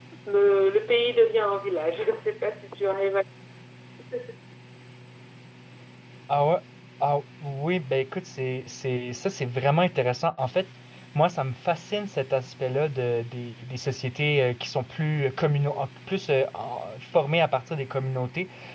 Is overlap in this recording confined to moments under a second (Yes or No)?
Yes